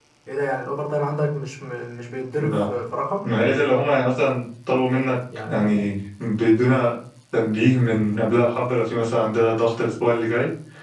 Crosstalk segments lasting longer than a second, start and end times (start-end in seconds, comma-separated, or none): none